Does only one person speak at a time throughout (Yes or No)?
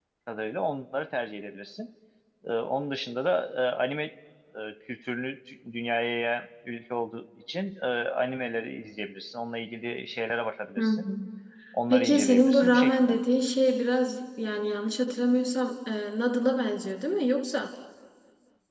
No